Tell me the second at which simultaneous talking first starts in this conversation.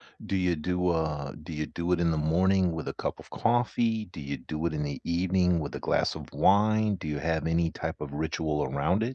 none

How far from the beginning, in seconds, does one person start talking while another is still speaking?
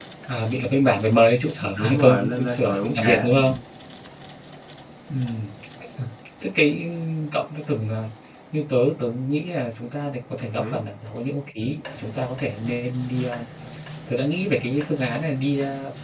1.8 s

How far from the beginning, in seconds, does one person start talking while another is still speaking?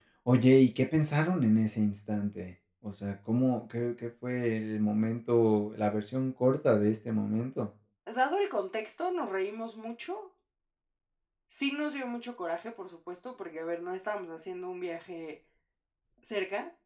none

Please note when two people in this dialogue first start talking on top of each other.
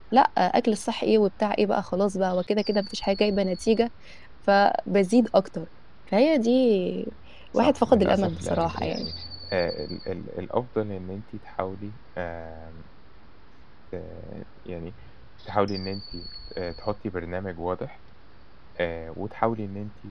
7.5 s

